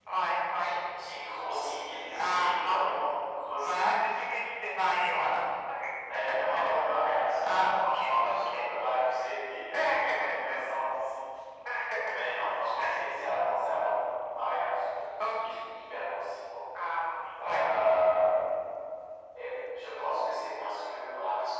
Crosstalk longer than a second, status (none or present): present